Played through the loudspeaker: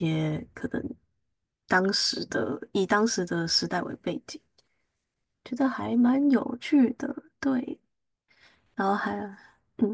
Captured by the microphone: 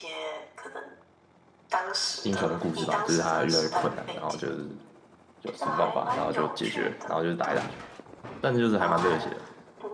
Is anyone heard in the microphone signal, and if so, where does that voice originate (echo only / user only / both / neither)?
both